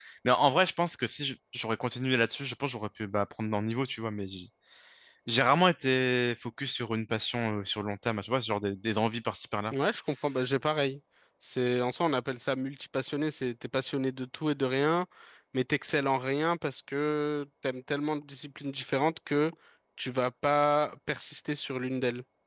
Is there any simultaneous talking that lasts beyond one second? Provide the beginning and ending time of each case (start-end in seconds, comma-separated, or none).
none